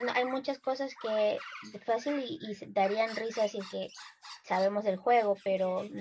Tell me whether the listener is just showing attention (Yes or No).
Yes